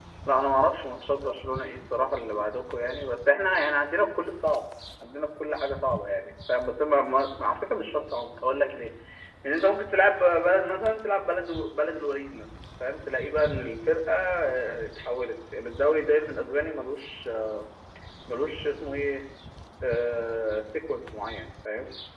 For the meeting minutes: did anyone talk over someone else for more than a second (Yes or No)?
No